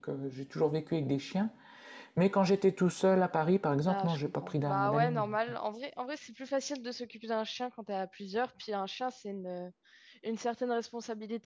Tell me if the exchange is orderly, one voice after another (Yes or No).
No